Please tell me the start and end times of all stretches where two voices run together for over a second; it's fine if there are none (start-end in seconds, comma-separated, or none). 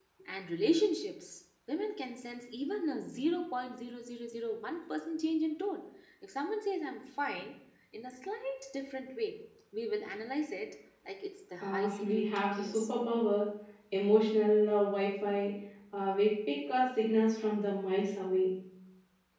11.6-12.9